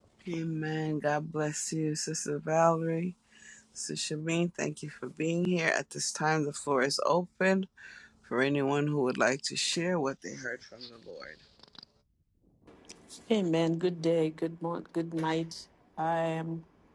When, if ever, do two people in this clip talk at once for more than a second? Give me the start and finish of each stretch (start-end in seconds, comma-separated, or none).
none